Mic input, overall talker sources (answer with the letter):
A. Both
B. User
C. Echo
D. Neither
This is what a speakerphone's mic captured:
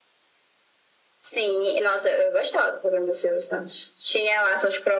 C